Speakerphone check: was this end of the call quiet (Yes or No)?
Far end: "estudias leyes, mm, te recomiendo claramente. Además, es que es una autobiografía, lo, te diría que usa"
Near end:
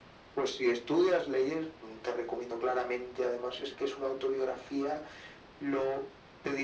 Yes